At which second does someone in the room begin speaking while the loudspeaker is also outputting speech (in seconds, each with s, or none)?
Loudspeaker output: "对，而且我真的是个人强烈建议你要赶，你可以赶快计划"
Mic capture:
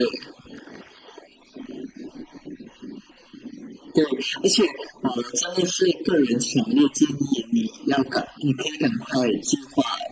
none